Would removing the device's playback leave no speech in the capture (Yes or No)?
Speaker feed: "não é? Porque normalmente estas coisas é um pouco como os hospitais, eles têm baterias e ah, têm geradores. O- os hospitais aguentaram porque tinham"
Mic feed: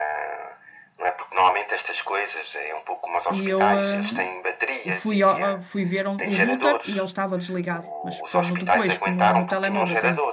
No